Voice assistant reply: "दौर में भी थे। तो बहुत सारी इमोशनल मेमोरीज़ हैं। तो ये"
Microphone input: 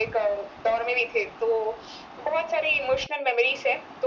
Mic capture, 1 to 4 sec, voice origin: echo only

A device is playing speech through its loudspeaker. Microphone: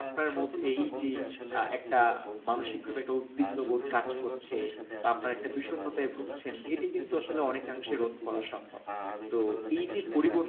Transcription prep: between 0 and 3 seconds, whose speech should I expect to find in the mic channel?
both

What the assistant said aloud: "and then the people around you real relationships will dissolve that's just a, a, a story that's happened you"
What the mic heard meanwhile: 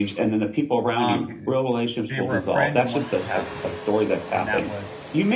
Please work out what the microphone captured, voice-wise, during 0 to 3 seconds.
both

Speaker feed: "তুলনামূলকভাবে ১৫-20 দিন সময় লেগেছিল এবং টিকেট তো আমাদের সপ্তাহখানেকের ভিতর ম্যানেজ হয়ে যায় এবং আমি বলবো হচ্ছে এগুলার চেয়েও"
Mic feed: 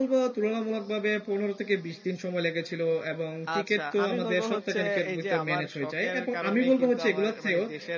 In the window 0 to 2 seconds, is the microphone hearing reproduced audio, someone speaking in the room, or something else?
echo only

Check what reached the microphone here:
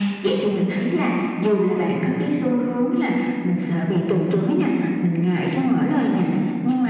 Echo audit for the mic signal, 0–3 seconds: echo only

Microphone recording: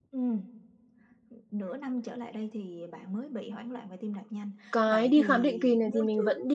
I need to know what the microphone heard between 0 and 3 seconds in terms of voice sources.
echo only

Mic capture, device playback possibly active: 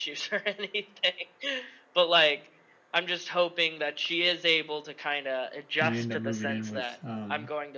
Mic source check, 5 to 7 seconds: both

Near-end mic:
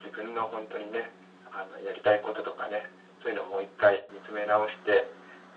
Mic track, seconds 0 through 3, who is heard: echo only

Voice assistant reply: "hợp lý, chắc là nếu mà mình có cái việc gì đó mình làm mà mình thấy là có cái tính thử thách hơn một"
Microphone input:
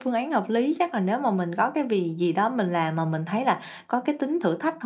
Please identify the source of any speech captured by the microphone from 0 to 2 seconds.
echo only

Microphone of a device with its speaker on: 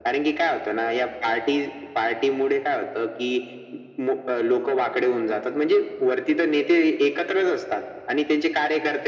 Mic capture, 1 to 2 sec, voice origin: echo only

